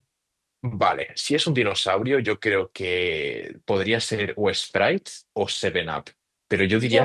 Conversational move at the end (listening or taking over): taking over